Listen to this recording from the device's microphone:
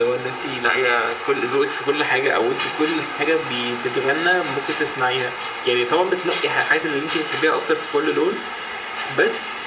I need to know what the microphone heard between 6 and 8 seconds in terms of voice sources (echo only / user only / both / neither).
echo only